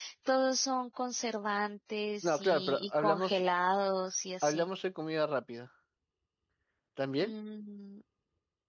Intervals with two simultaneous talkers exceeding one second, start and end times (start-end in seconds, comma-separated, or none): 2.2-3.4